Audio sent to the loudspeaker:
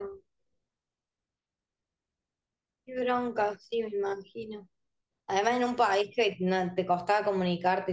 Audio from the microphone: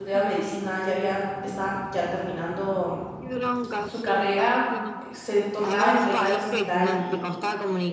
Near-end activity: present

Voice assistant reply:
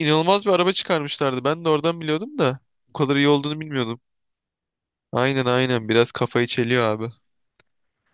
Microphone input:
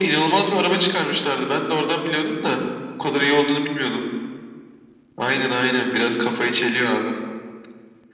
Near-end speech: none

